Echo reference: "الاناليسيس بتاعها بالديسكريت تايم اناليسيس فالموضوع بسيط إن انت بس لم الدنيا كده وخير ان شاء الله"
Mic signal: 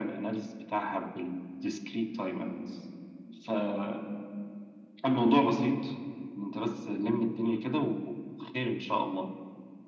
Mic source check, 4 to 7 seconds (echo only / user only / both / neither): echo only